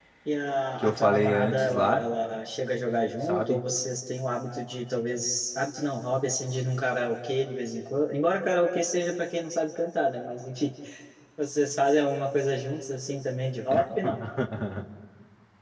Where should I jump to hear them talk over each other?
0.8 s

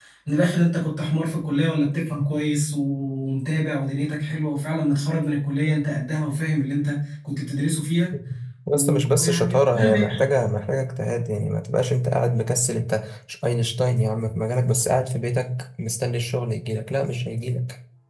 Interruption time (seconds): 8.7 s

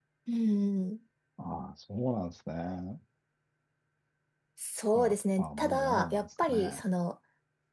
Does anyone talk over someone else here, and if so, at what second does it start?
5.0 s

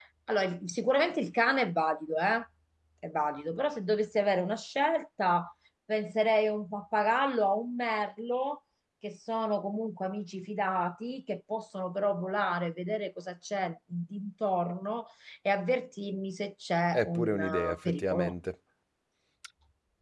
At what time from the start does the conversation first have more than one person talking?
16.9 s

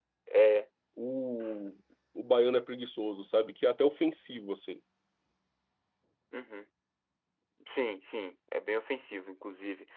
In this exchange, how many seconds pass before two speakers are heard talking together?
none

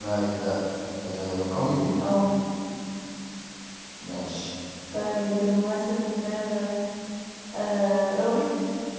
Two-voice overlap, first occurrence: none

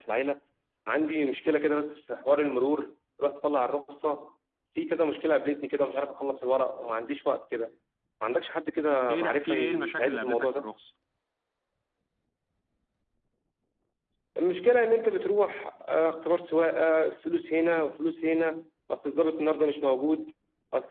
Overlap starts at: 9.1 s

